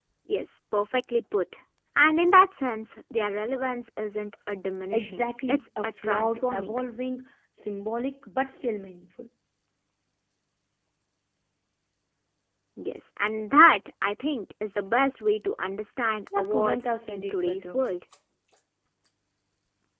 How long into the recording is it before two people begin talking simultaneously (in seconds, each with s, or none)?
4.9 s